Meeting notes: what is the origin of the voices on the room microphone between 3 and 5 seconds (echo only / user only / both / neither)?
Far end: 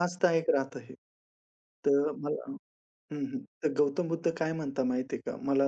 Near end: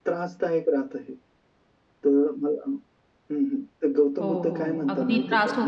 both